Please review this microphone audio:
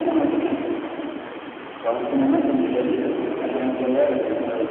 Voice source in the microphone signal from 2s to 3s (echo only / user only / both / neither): echo only